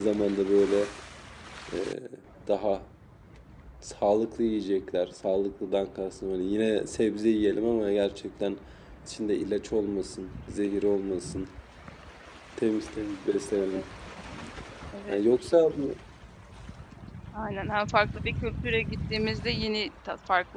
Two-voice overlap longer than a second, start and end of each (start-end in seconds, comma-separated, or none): none